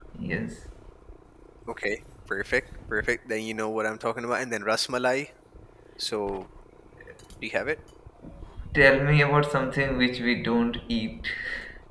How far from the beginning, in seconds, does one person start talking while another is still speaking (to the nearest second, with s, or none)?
none